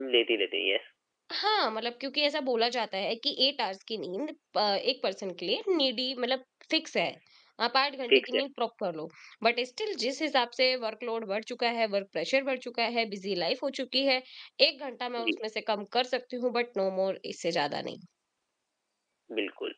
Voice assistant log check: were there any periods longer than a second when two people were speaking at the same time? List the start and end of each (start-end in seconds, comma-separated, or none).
none